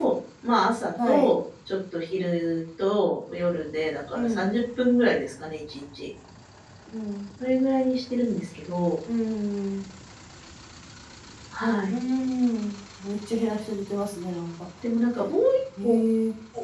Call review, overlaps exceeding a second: none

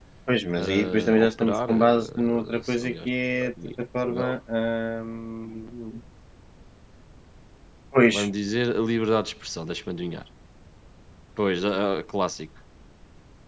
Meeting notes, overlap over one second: present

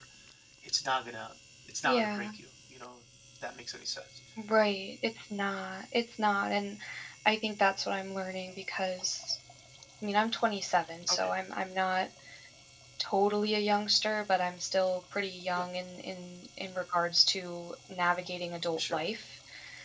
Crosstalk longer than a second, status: none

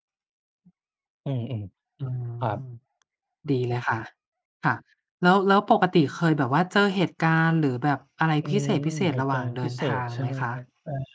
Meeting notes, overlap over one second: present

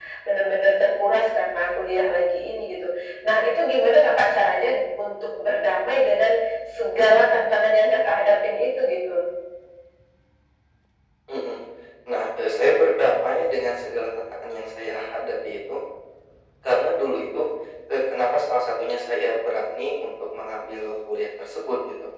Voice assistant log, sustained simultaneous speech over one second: none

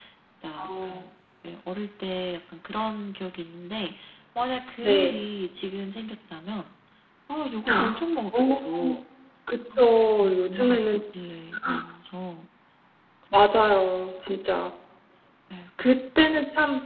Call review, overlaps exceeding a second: present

